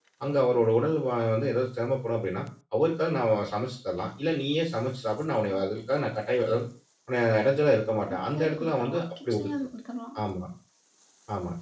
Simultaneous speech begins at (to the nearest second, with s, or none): 8 s